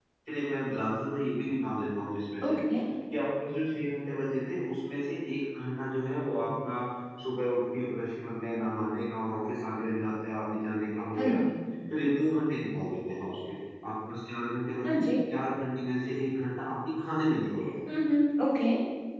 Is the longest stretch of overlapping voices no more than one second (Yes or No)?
Yes